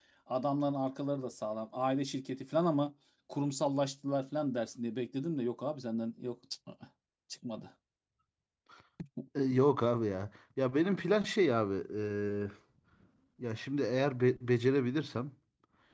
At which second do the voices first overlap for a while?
none

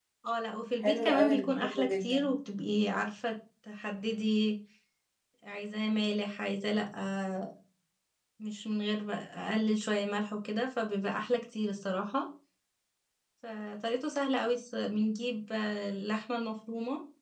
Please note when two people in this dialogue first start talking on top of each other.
1 s

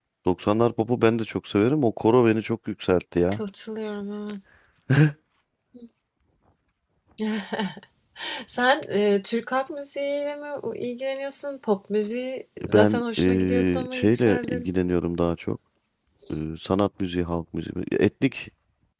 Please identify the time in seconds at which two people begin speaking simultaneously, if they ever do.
13 s

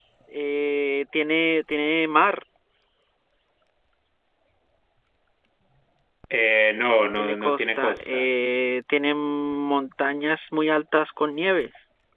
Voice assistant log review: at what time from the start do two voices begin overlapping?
7 s

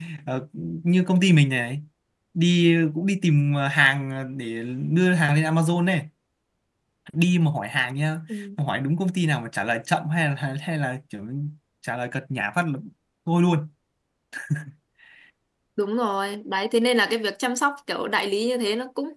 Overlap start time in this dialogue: none

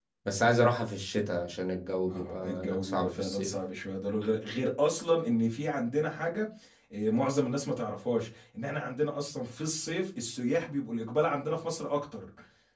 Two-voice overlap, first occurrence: 2 s

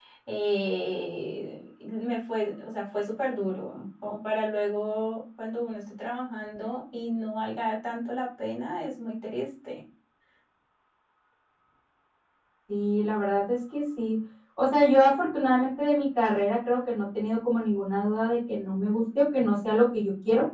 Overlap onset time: none

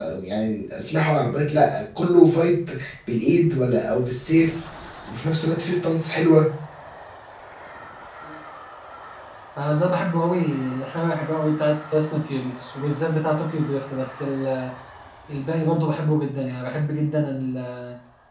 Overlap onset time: none

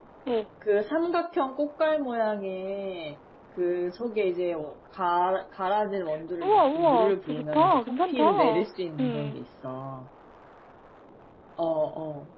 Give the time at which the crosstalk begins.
6 s

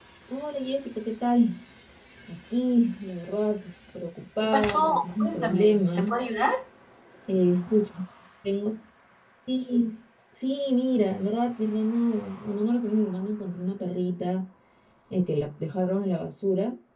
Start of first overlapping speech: 4 s

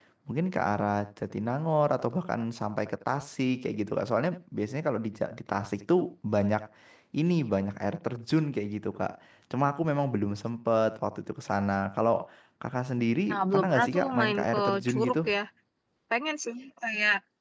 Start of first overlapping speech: 13 s

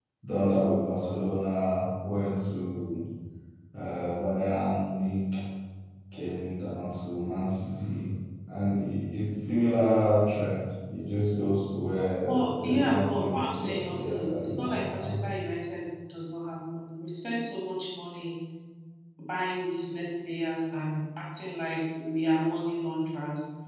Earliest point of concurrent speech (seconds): 12 s

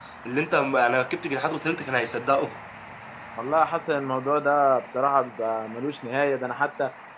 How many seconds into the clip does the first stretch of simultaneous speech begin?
none

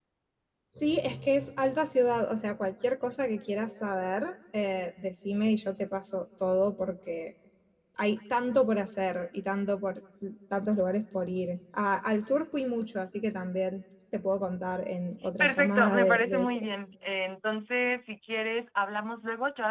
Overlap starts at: 15 s

